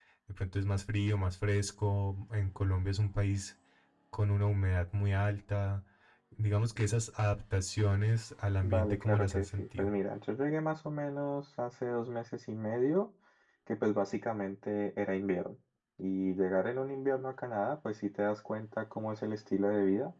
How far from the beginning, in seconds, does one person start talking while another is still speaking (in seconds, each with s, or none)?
8.6 s